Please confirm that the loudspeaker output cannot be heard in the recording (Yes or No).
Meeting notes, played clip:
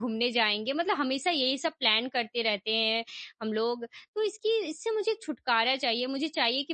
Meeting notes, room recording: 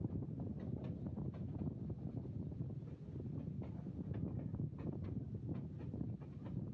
Yes